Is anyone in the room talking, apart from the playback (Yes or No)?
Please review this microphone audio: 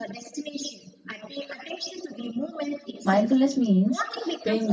Yes